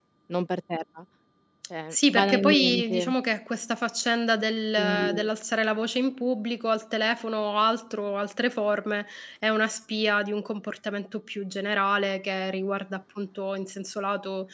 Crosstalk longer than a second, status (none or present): present